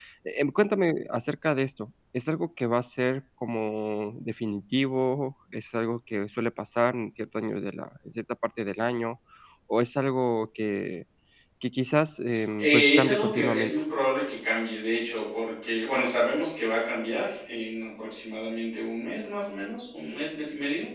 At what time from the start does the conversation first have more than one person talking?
12.6 s

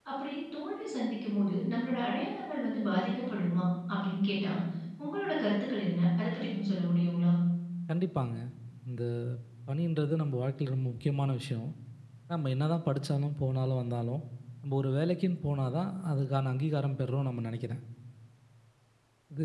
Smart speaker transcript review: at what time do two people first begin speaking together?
none

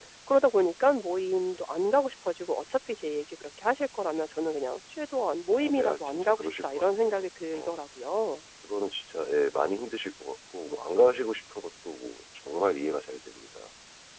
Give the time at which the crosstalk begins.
5.6 s

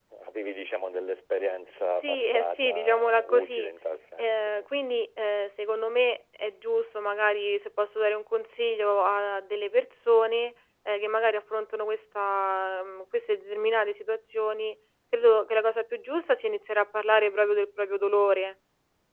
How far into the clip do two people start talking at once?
2.0 s

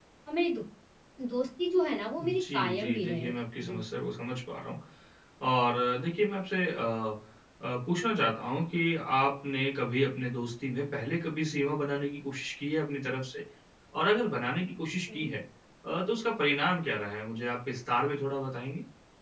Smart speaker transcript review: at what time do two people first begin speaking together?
2.2 s

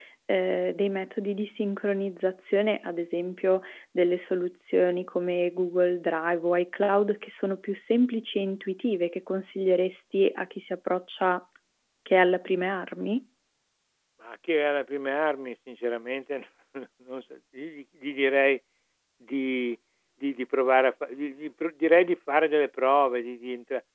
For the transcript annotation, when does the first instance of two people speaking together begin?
none

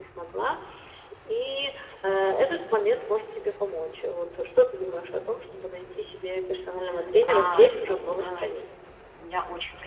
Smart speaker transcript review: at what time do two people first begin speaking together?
7.2 s

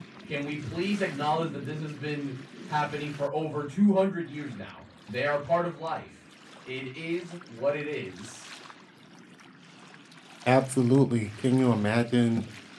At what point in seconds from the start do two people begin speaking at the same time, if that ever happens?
none

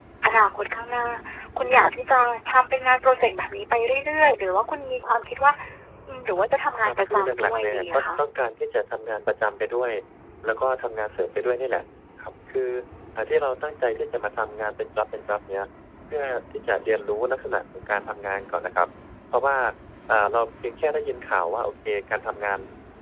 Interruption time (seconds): 6.8 s

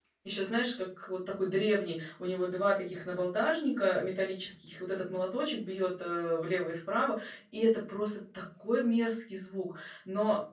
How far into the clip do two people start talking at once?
none

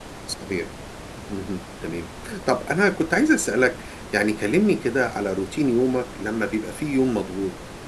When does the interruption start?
none

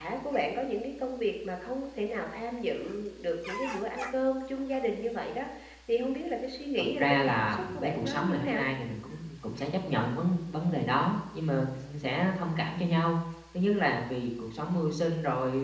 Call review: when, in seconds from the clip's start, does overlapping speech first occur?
7.0 s

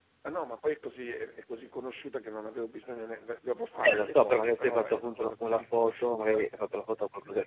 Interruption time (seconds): 3.8 s

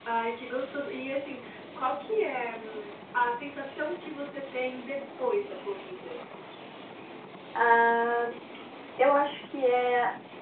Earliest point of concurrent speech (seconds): none

